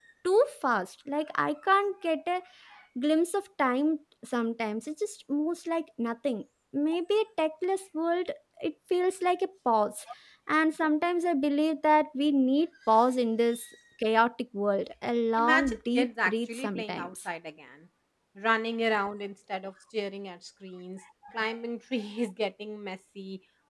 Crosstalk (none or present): present